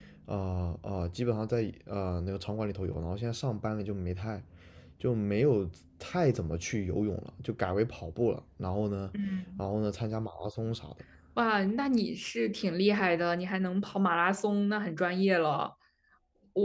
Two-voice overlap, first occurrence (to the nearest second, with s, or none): none